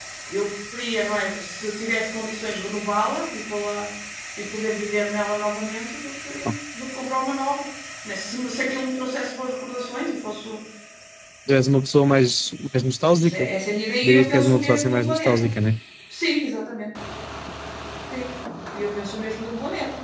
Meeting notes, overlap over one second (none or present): present